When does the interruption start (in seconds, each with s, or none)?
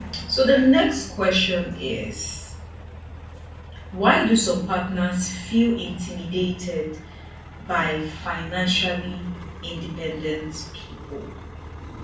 none